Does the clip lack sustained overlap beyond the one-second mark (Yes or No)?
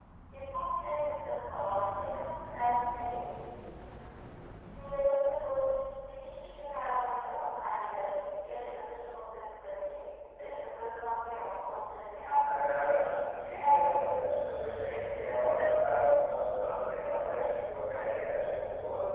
No